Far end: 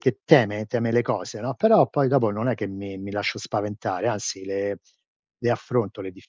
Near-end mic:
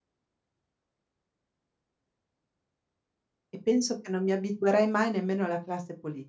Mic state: user only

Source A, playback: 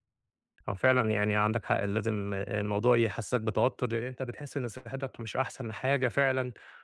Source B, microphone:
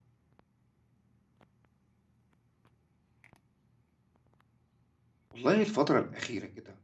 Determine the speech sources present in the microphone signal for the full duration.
user only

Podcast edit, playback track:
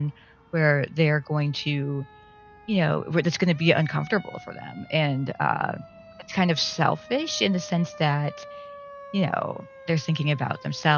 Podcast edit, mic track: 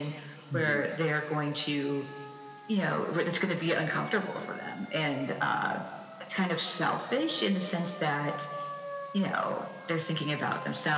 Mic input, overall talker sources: both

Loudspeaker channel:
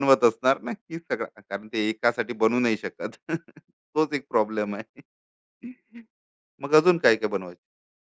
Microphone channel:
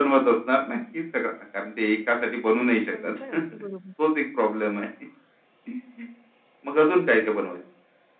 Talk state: both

